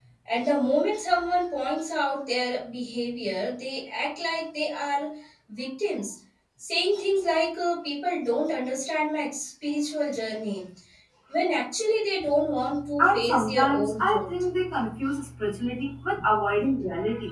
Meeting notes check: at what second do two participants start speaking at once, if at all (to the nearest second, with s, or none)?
13 s